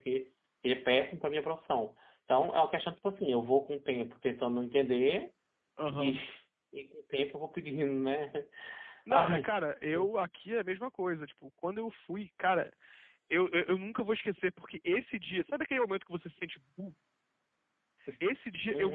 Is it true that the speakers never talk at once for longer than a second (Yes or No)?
Yes